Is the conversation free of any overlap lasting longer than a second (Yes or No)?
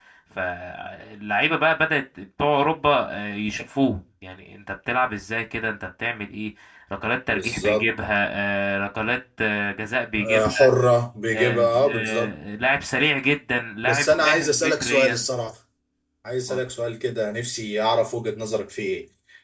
No